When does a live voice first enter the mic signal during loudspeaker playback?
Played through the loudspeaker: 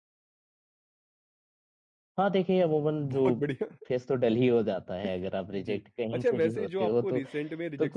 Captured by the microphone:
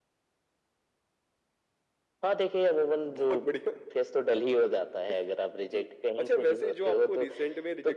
none

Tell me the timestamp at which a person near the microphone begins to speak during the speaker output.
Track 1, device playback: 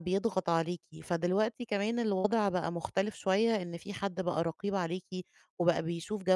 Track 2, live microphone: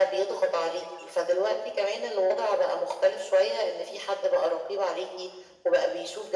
none

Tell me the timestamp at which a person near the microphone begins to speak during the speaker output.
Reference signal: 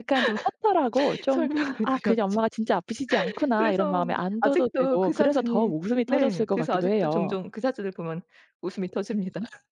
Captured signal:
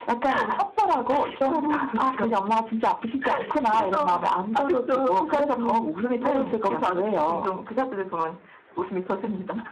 none

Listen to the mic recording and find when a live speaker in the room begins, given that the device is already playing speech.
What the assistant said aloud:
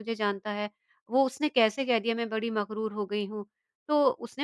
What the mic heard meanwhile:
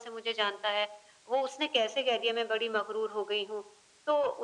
none

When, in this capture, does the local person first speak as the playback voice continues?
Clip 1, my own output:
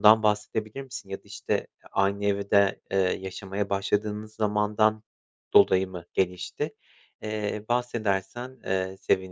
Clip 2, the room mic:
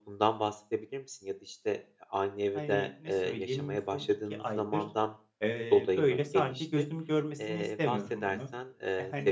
2.5 s

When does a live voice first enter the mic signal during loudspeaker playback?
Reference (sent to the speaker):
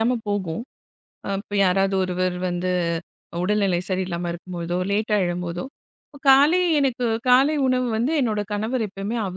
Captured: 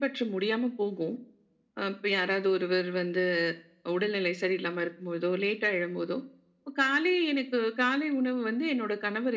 none

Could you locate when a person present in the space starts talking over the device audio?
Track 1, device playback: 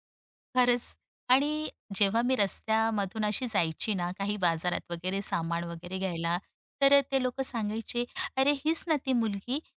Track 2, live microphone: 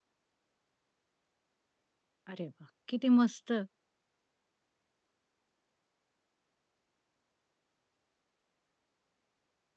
2.3 s

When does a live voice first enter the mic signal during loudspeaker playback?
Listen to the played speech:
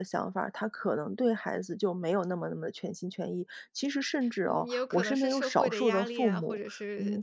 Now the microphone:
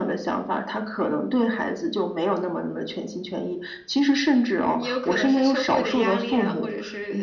none

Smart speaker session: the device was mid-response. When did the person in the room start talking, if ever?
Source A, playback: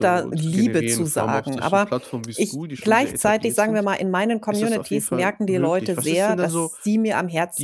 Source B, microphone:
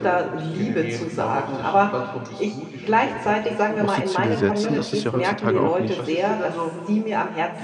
3.7 s

